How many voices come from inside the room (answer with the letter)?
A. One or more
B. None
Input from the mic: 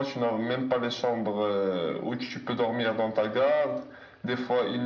B